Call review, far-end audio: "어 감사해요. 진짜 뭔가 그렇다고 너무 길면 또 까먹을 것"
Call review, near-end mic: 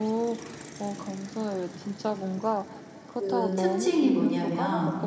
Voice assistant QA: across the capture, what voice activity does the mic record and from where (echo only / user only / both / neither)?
both